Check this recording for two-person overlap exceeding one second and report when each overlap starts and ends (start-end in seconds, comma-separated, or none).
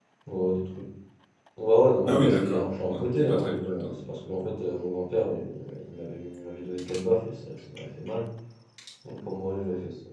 2.1-4.0